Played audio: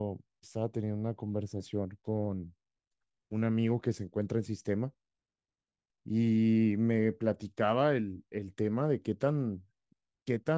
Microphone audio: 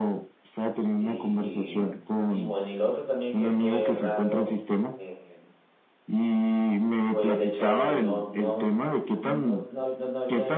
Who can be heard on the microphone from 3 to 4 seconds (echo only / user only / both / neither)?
both